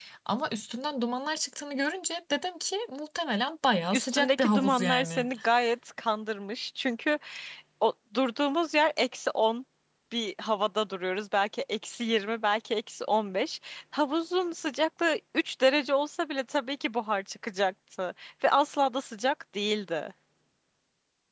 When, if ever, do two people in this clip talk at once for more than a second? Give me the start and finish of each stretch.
3.9-5.3

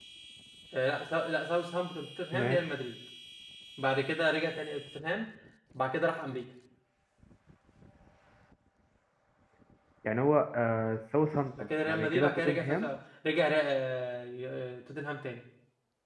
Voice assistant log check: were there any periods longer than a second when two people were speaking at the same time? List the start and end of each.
11.6-12.9

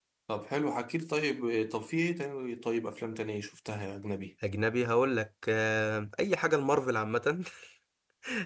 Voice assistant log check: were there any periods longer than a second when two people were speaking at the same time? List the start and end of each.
none

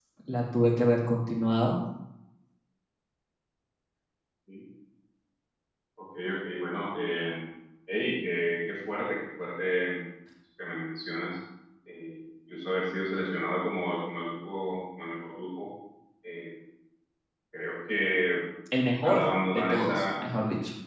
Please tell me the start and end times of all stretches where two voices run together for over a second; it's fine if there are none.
19.0-20.2

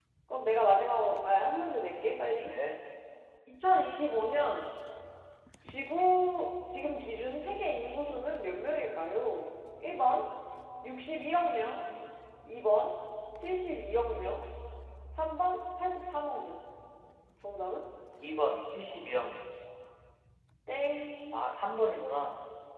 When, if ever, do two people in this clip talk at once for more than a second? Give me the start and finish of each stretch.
none

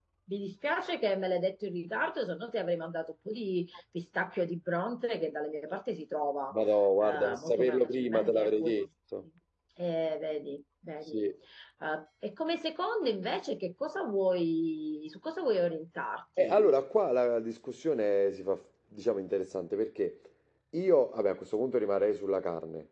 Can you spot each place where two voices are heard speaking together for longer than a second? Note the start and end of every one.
7.0-8.8

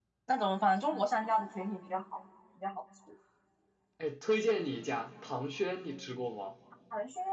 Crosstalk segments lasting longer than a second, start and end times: none

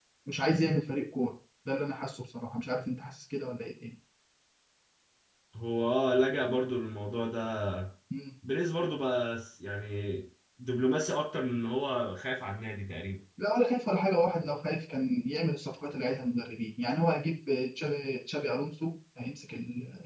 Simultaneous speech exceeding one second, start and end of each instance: none

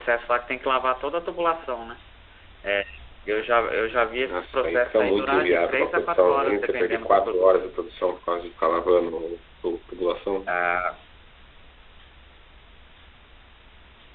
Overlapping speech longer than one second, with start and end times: 4.2-7.5

